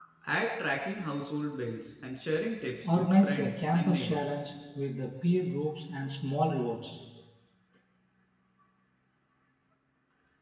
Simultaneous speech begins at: 3 s

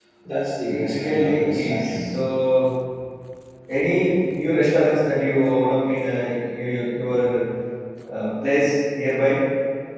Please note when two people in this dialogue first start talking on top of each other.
1 s

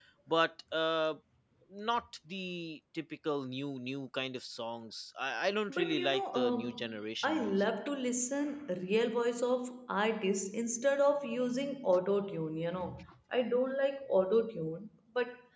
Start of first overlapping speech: 6 s

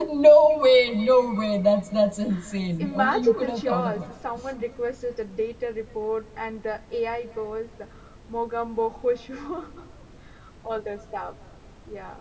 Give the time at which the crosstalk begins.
3 s

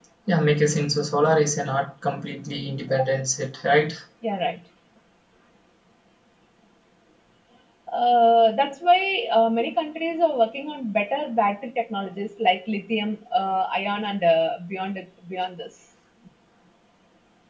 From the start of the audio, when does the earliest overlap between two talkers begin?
none

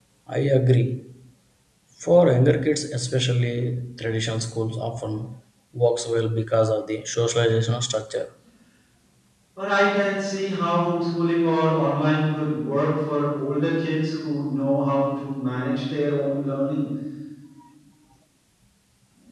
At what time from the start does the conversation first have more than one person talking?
none

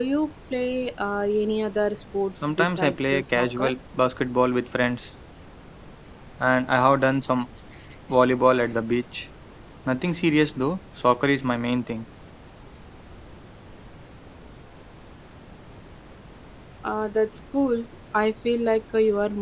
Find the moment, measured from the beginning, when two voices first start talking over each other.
2 s

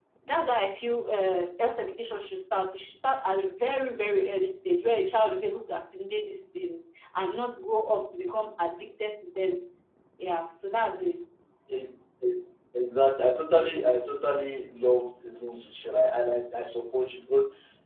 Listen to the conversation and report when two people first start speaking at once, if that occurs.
none

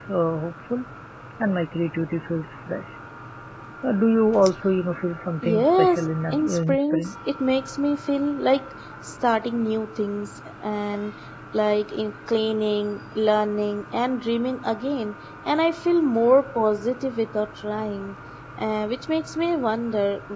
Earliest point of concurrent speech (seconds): 5 s

